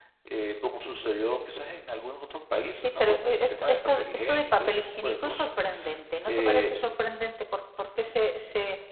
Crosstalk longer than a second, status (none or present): present